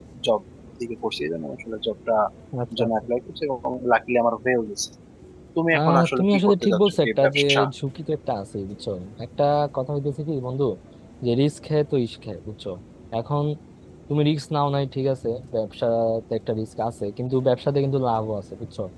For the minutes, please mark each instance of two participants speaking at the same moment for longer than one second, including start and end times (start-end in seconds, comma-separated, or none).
5.7-7.4